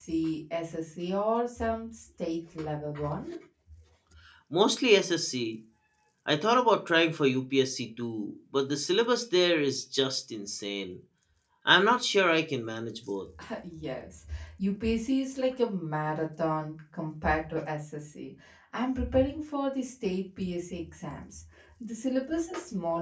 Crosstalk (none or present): none